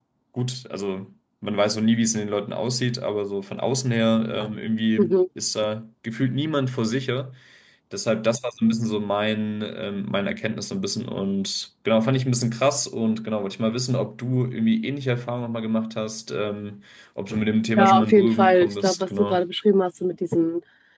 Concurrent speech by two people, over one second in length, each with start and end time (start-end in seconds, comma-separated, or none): 17.8-19.4